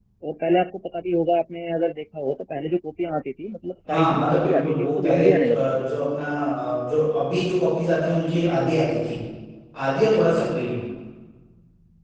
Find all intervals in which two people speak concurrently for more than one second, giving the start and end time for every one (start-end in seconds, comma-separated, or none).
3.9-5.8